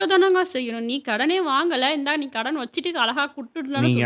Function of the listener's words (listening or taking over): taking over